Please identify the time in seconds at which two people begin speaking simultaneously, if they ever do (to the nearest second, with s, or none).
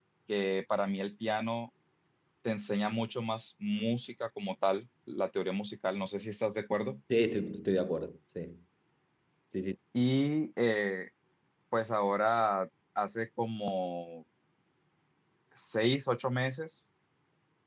none